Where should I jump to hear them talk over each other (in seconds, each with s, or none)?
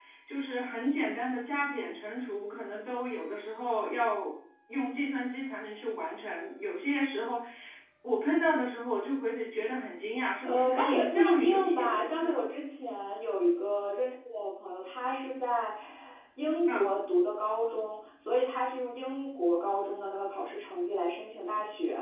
10.4 s